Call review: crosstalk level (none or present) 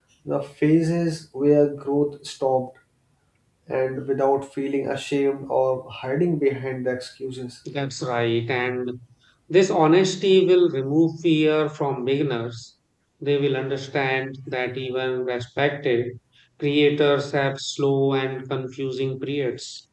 none